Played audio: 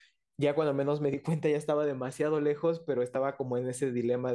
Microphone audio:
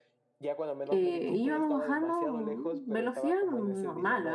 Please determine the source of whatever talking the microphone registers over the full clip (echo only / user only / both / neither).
both